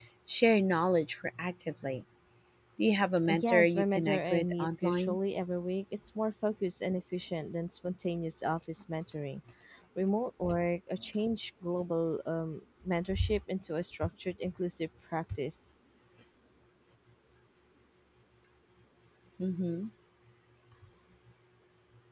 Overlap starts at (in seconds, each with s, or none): 3.3 s